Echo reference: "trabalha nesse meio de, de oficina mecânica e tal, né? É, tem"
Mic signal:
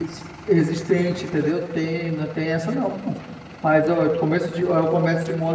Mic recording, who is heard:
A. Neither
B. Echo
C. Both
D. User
D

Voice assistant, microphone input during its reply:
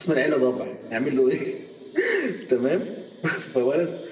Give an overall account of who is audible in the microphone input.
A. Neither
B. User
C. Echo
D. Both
B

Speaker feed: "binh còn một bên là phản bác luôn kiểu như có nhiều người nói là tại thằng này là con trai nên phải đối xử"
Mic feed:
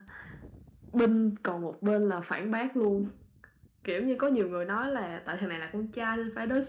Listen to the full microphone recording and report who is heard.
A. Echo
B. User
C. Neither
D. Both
A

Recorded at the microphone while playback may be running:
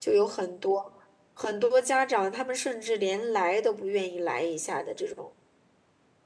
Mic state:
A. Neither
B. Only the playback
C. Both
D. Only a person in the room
D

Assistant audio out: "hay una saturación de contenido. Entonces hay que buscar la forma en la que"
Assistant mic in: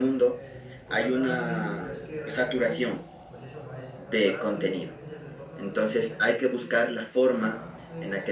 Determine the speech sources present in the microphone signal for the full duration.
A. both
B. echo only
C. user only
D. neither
A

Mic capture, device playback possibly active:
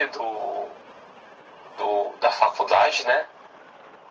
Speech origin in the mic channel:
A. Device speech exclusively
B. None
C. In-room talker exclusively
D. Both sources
A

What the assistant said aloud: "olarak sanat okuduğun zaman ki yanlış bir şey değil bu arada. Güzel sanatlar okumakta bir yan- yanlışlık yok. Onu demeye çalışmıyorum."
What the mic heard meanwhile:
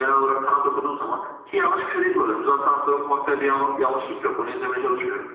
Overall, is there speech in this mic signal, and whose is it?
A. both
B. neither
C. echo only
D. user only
C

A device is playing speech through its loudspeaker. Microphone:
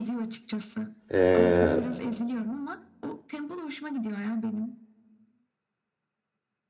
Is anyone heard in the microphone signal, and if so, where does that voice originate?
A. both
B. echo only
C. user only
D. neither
A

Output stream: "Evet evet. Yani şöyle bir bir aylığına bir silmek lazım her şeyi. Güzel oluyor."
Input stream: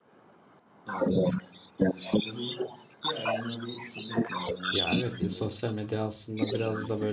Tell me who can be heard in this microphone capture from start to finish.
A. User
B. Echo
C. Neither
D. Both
D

